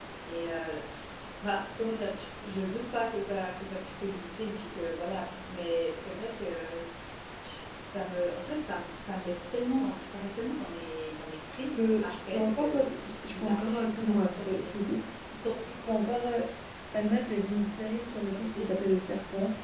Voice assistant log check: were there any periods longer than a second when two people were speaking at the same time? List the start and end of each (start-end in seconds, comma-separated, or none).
11.8-14.7